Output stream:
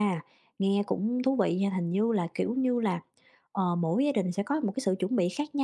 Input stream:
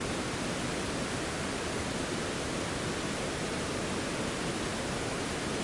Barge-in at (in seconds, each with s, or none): none